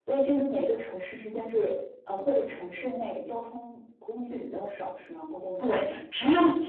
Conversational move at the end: taking over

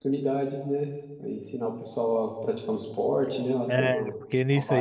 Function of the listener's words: taking over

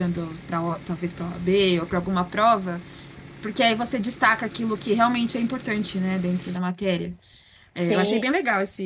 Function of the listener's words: listening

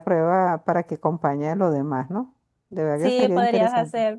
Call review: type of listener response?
taking over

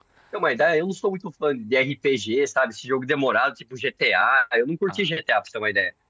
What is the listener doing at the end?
listening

